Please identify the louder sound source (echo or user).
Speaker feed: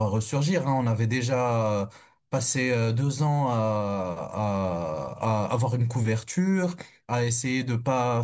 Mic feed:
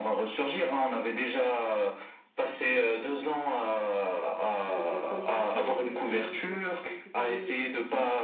echo